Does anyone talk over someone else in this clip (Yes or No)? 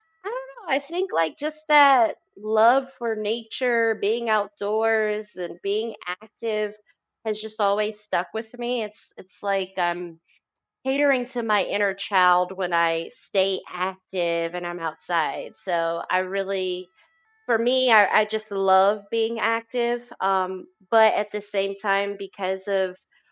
No